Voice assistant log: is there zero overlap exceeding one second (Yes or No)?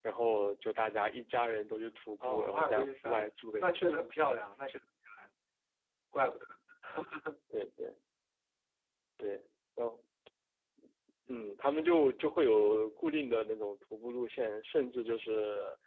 No